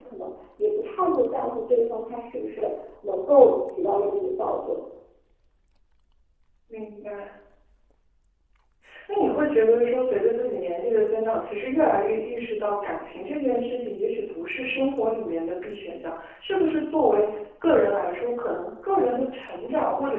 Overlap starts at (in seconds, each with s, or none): none